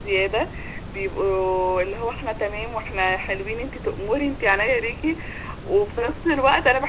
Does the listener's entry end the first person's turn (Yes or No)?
No